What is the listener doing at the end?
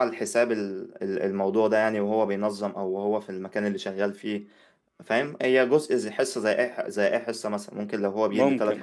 listening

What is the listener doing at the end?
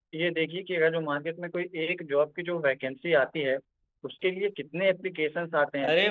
taking over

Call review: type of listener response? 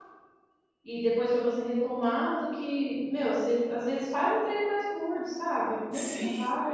listening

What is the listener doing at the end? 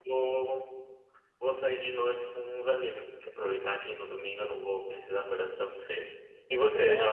taking over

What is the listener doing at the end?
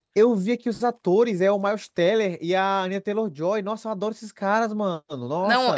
taking over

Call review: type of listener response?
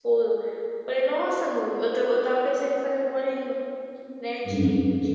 listening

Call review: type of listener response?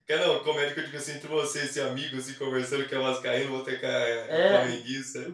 taking over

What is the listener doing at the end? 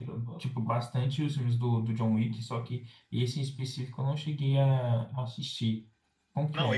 taking over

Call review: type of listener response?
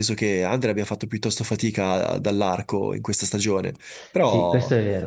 taking over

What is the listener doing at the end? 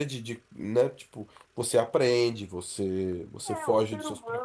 taking over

